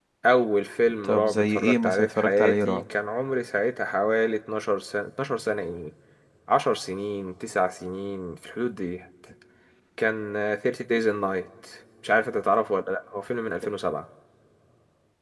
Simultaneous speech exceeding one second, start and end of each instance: 1.0-2.8

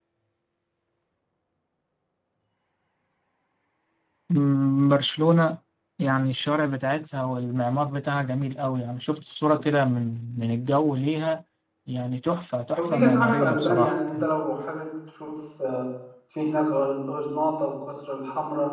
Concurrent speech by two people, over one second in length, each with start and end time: 12.8-14.2

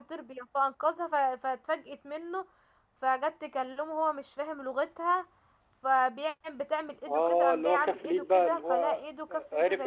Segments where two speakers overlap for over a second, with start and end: 7.1-9.1

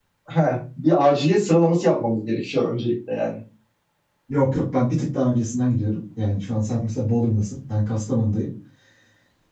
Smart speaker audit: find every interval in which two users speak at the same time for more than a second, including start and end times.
none

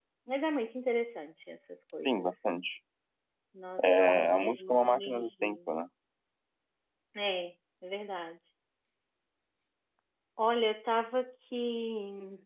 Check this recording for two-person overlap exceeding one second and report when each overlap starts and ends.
3.8-5.7

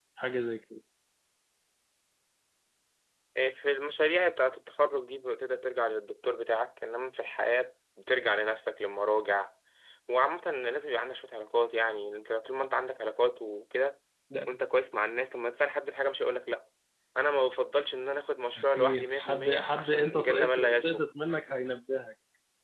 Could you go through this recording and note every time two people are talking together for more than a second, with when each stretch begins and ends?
18.6-21.0

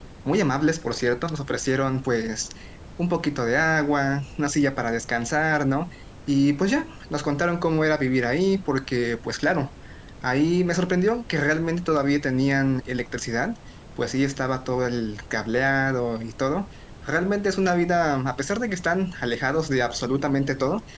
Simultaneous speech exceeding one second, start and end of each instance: none

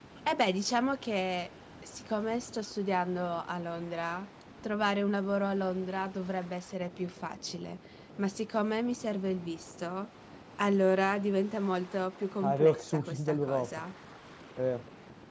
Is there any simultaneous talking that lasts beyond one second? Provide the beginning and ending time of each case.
12.4-13.7

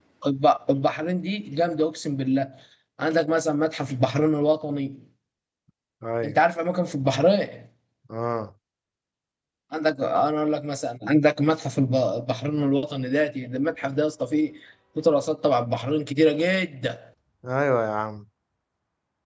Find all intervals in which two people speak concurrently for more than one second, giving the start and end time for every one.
none

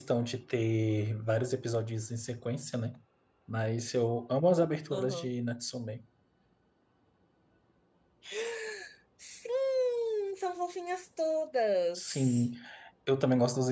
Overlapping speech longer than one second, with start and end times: none

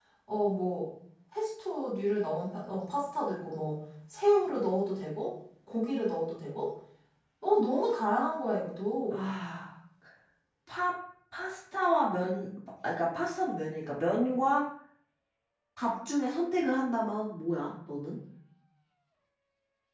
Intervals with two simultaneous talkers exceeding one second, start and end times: none

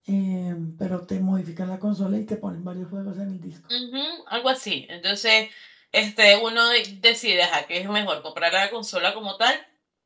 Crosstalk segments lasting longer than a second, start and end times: none

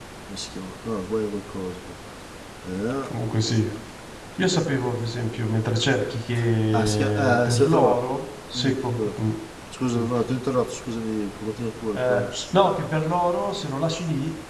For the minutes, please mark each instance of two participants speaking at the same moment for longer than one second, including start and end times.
6.7-8.0

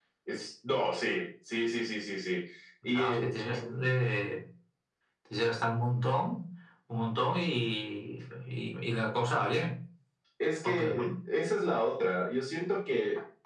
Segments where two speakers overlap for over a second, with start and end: none

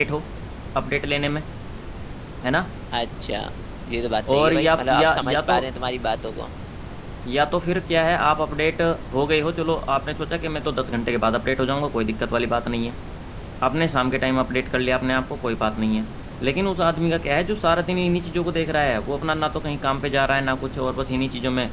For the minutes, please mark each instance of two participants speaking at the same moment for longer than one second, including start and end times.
4.3-5.6

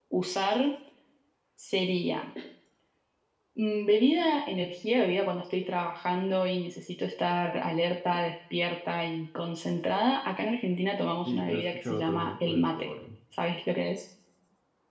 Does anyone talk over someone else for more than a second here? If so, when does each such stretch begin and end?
11.2-12.9

